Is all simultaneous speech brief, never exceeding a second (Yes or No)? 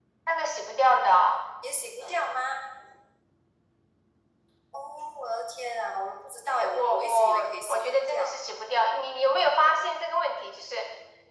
No